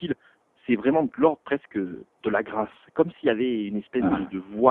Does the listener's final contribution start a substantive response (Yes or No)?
No